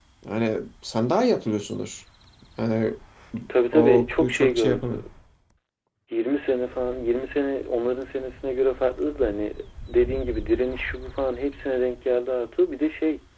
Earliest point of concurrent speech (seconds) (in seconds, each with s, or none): 3.7 s